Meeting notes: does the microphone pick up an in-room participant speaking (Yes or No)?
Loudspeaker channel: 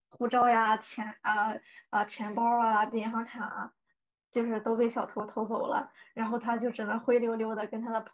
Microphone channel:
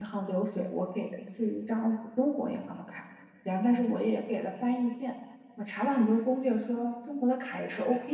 Yes